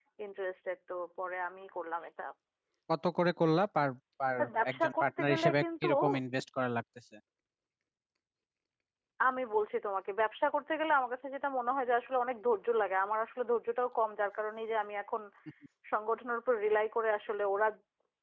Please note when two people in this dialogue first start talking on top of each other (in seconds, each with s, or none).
4.4 s